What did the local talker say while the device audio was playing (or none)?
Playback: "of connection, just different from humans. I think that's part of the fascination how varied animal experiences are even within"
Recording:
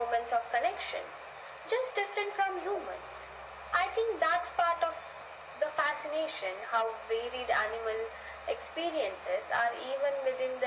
none